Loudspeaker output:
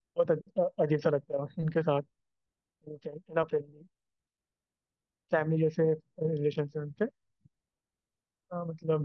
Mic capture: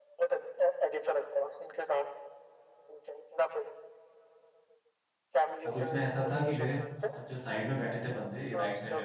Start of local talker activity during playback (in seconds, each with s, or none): 5.7 s